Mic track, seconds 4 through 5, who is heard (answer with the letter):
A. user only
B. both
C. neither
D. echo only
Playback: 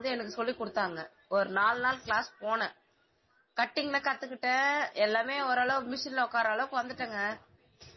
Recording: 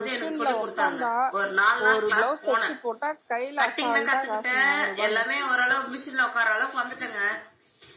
B